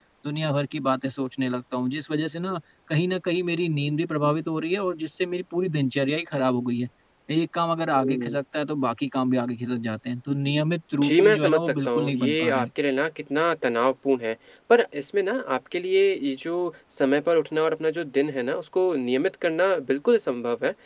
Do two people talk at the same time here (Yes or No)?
Yes